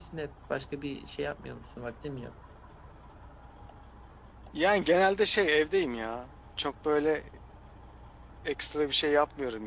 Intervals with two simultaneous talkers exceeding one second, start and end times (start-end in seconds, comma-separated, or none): none